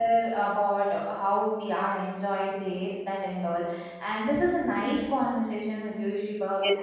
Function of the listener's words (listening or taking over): taking over